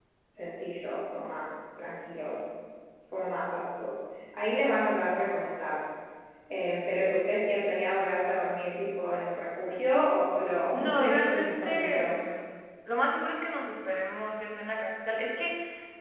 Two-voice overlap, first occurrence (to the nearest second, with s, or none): 11 s